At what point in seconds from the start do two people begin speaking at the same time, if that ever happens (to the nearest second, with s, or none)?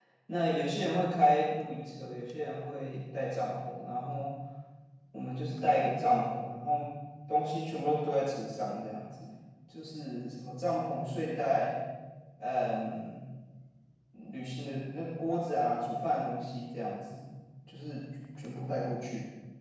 none